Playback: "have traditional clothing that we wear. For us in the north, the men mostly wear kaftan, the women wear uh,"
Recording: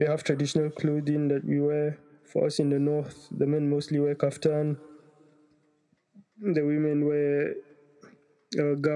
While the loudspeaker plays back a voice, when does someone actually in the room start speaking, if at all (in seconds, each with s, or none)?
none